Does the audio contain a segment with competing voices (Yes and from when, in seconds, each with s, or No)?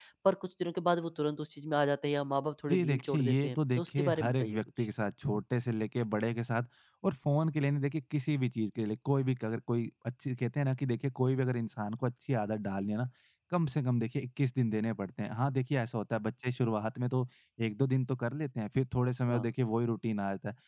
Yes, from 2.7 s